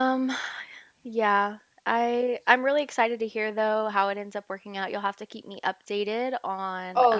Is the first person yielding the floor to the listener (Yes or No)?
Yes